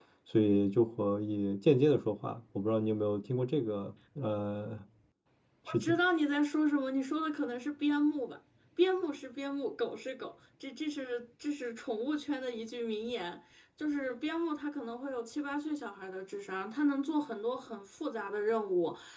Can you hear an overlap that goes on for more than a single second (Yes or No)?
No